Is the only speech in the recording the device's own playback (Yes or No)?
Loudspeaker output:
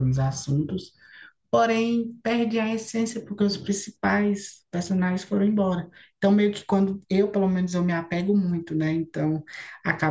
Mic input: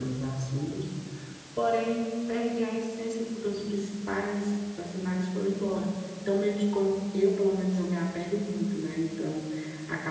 Yes